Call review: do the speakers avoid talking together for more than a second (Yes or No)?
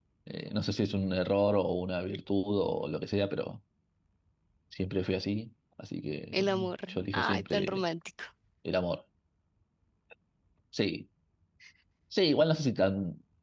No